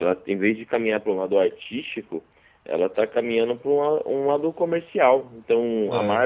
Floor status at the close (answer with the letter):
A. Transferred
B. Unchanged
B